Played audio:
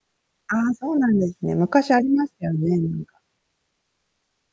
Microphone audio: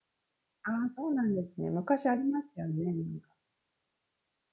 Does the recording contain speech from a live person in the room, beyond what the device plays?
No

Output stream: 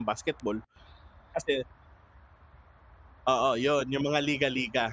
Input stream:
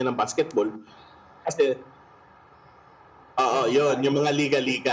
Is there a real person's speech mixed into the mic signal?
Yes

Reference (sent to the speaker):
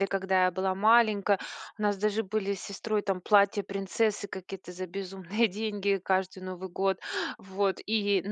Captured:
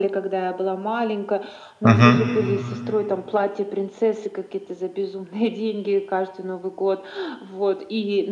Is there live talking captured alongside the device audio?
Yes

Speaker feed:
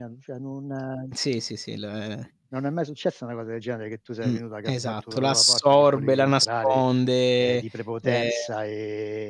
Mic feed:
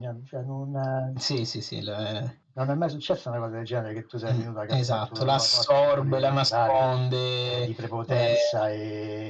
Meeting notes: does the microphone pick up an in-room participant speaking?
No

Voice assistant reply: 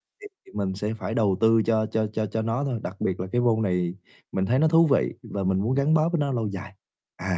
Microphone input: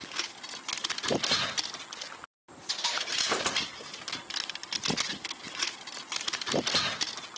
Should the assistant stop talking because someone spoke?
No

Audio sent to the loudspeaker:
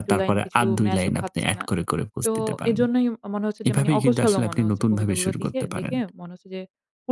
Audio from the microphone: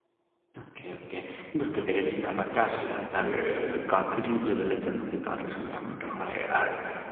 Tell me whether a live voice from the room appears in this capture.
Yes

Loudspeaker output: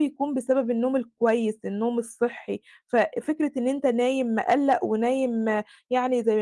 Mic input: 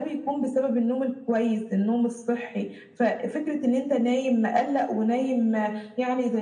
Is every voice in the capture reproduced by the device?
Yes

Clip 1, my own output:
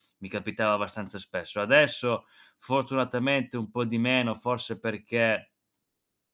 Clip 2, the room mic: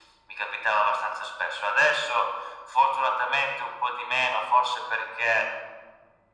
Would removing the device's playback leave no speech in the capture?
Yes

